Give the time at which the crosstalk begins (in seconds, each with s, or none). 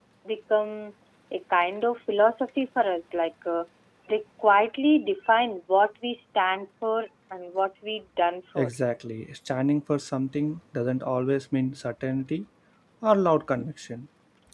none